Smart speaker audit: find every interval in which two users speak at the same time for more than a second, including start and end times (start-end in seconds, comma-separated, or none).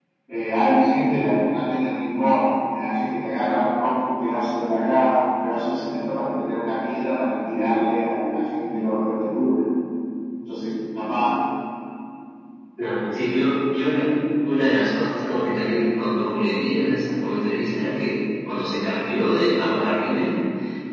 none